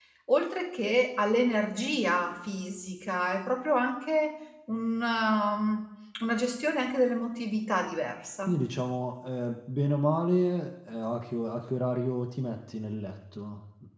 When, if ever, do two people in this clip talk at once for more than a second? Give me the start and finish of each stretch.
none

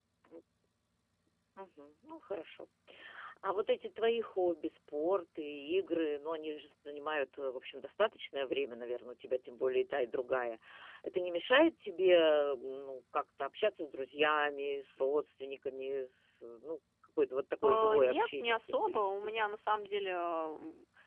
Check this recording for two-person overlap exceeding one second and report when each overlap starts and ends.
17.6-19.0

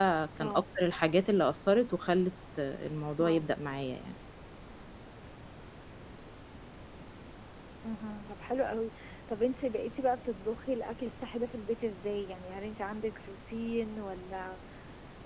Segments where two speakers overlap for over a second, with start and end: none

